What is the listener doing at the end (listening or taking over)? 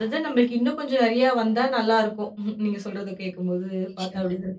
listening